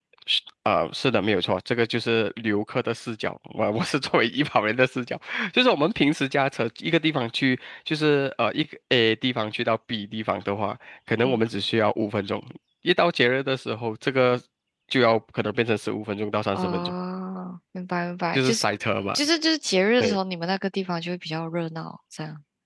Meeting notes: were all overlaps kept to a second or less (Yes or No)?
Yes